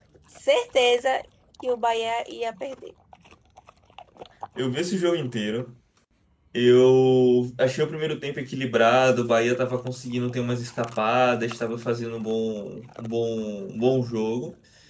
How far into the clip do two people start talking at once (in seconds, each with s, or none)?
none